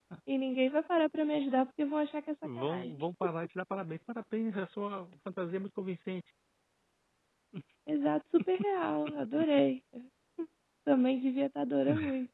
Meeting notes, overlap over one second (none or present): none